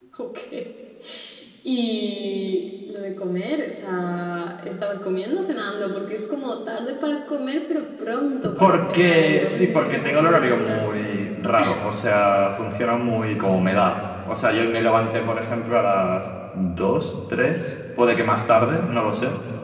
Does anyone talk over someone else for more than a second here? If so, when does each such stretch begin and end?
8.6-10.9

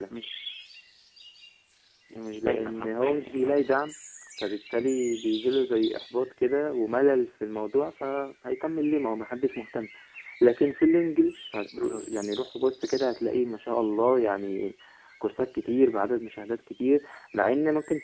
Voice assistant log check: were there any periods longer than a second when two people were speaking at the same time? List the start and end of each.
2.4-3.6

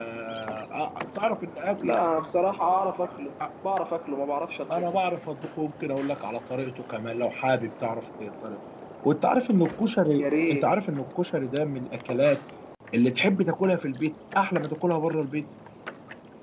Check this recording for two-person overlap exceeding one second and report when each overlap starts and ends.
none

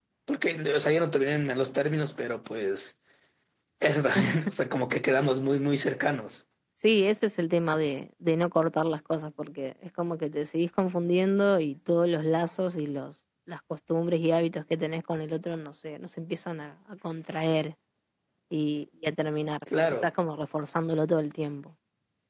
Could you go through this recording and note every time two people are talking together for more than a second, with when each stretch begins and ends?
none

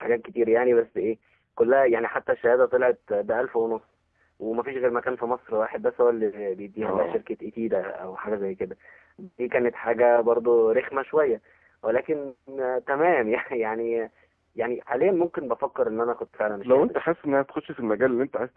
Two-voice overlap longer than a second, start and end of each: none

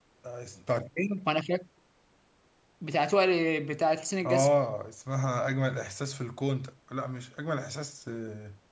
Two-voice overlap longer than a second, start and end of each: none

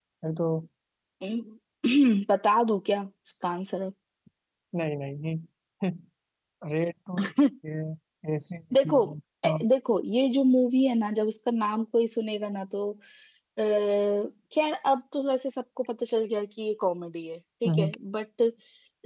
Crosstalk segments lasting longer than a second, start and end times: none

